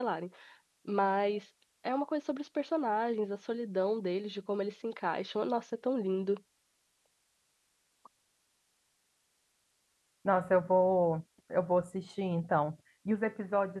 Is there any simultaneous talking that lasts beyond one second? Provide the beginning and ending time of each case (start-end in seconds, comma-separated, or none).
none